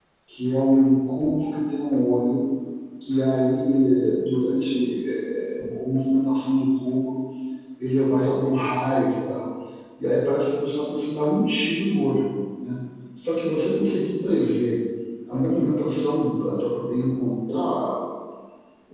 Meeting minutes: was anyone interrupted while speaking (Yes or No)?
No